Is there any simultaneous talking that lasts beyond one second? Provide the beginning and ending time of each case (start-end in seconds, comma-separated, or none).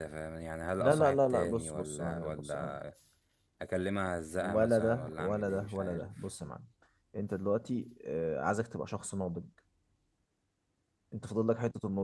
0.8-2.7, 4.4-6.1